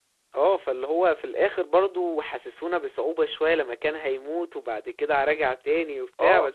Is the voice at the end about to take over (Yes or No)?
Yes